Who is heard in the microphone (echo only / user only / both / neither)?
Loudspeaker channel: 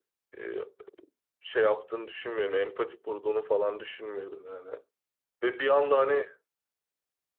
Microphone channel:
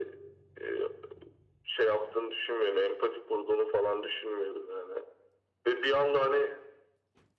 echo only